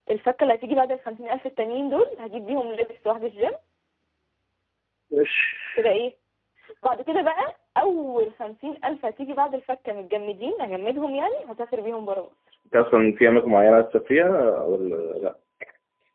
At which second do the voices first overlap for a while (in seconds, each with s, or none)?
none